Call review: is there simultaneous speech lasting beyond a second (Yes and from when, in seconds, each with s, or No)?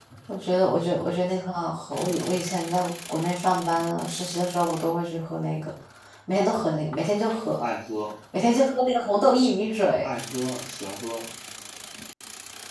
No